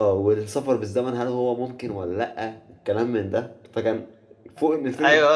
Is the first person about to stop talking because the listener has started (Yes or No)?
Yes